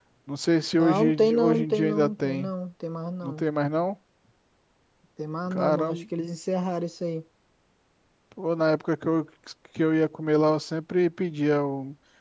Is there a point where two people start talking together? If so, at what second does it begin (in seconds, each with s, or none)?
0.8 s